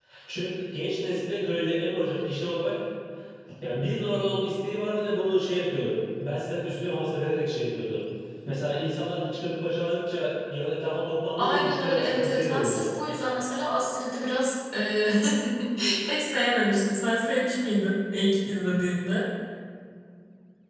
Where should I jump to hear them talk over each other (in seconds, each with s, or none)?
11.4 s